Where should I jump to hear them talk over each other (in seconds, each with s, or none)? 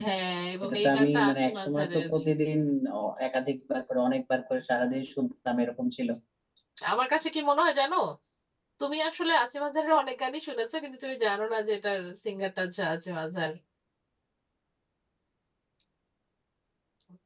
0.6 s